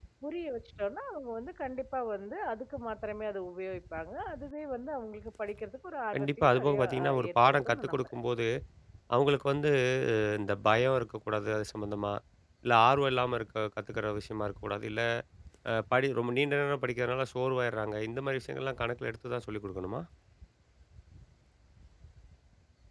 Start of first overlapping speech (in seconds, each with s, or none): 6.1 s